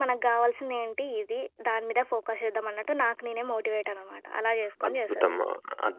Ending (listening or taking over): taking over